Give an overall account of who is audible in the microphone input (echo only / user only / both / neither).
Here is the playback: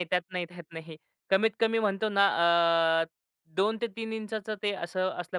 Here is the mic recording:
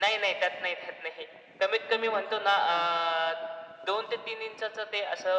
both